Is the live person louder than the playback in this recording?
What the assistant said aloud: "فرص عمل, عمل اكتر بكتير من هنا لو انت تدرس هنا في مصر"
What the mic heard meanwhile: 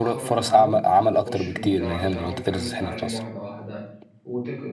No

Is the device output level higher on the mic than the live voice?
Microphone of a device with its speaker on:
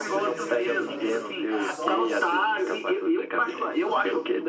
Yes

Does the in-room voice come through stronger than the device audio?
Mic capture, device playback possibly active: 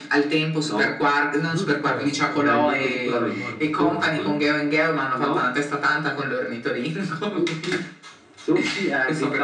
No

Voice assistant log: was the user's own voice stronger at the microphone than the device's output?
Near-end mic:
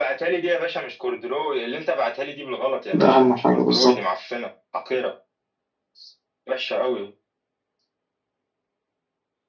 Yes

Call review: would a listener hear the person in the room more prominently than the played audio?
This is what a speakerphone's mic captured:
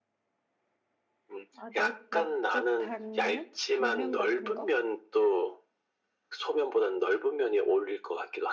No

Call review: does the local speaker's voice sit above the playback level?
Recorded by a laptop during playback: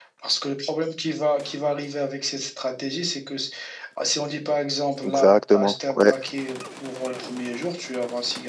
Yes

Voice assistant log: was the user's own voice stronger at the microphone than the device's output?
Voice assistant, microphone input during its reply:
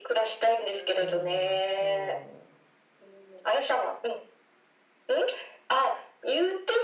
No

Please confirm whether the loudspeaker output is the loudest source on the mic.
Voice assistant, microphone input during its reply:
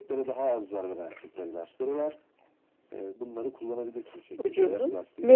No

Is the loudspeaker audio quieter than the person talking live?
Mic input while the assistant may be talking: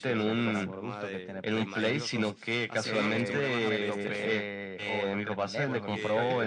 No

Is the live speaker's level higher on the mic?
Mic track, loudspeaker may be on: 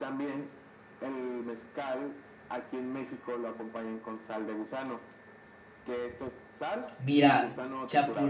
Yes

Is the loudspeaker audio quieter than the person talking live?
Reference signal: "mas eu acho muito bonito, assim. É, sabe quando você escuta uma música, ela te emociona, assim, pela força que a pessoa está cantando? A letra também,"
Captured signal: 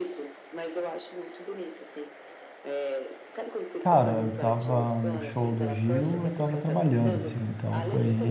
Yes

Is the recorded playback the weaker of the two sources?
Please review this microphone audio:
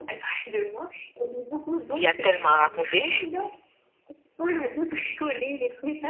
Yes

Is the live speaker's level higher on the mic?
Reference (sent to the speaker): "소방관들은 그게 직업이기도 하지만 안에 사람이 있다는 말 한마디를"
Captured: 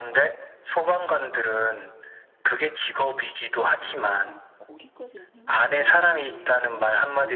No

